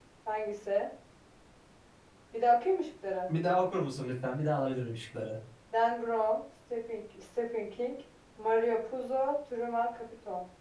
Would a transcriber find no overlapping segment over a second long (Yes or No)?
Yes